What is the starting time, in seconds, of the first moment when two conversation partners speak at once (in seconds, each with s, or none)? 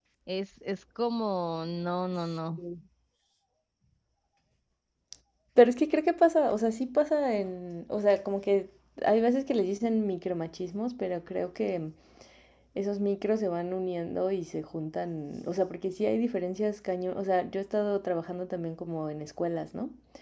none